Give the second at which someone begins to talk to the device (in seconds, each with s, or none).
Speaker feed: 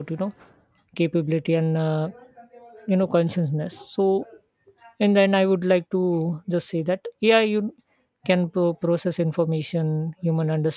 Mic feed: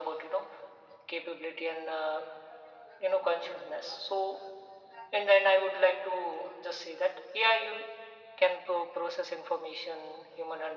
none